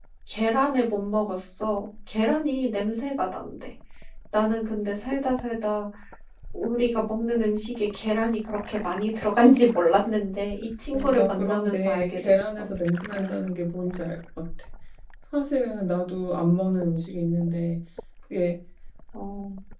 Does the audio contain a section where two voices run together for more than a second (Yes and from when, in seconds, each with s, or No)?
Yes, from 10.9 s